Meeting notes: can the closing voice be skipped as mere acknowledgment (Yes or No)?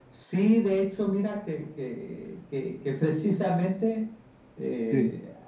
Yes